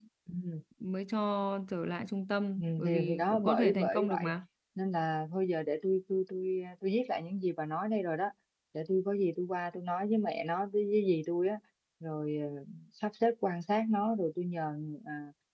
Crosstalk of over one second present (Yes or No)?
Yes